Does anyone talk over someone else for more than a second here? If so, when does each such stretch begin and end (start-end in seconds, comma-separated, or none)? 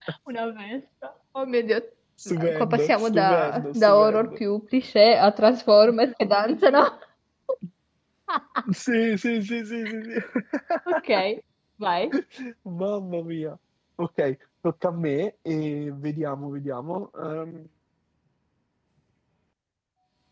2.5-4.3